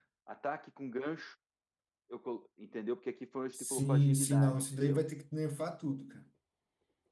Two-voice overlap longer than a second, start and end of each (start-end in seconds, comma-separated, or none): 3.5-5.0